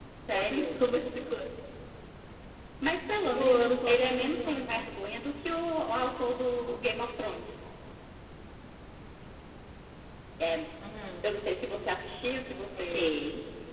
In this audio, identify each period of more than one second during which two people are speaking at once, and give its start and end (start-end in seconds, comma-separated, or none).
3.3-4.9